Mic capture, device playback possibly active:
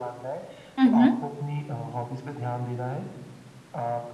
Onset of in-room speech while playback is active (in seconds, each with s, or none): 0.8 s